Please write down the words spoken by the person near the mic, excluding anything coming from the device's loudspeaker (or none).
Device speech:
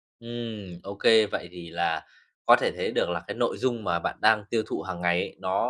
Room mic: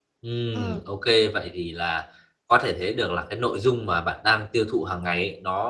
Ờ,